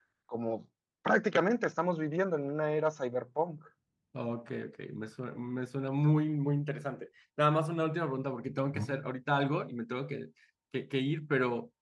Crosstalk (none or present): none